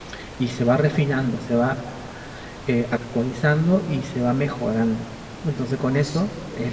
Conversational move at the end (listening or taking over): listening